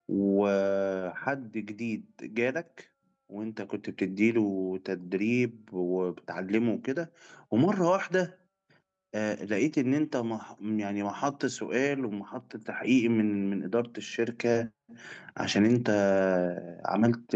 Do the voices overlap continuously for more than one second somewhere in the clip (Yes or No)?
No